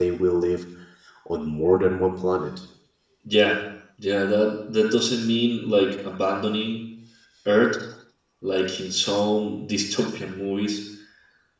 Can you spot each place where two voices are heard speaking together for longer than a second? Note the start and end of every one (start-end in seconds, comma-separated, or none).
none